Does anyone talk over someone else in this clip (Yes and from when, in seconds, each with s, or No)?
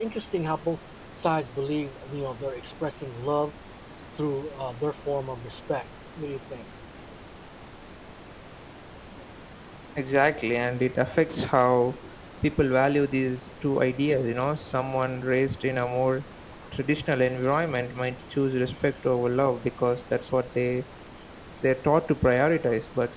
No